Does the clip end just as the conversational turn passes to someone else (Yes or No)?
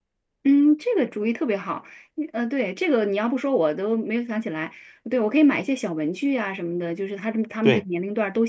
No